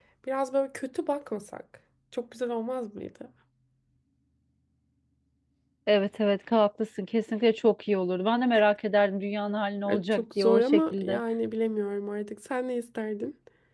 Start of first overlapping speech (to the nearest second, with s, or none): 10 s